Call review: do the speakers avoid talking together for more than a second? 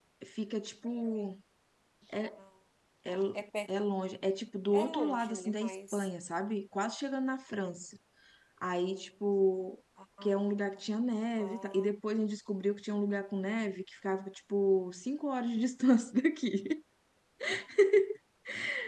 No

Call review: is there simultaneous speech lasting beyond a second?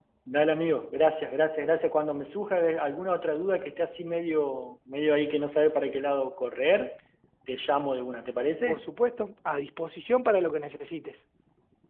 No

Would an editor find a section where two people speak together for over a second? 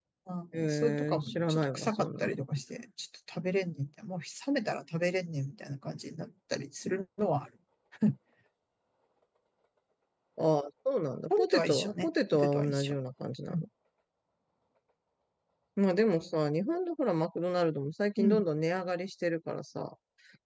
Yes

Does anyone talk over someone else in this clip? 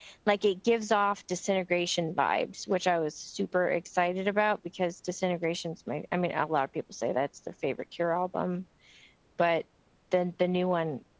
No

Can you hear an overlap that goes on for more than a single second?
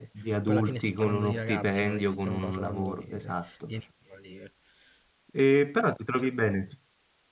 Yes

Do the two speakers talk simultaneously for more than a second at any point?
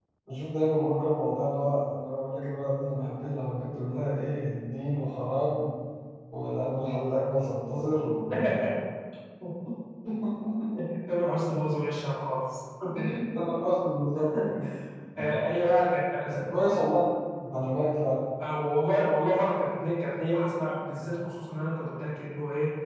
No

